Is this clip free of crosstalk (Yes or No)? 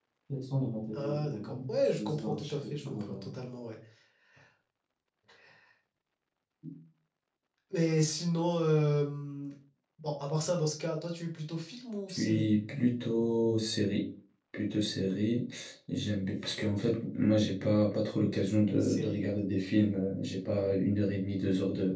No